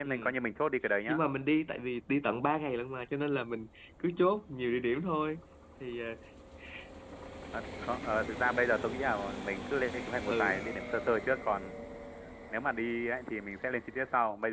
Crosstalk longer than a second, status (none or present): none